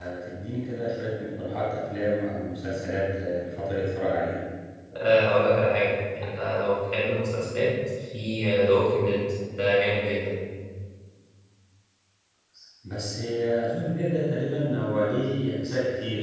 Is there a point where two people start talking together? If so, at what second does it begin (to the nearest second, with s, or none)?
none